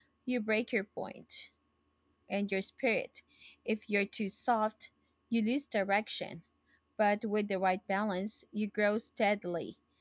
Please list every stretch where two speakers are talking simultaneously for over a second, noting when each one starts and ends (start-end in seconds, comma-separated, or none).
none